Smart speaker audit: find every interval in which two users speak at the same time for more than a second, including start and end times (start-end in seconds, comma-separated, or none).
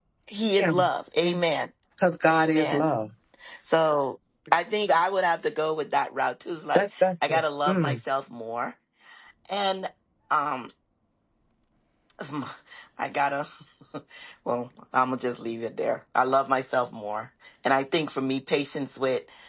6.8-8.0